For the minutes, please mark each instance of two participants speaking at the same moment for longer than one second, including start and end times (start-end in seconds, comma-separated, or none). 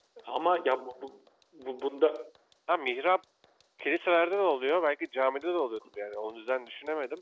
none